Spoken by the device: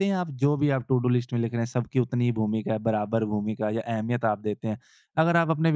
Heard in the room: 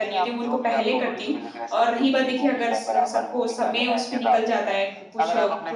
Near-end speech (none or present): present